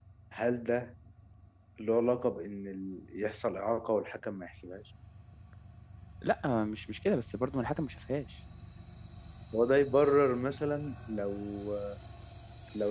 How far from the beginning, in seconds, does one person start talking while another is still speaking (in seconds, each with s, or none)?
none